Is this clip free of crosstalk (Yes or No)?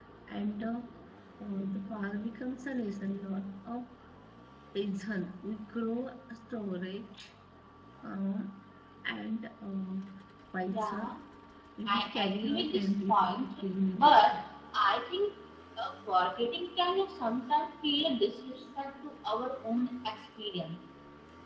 No